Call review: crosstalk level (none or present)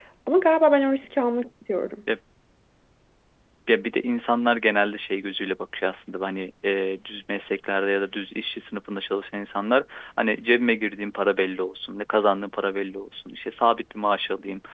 none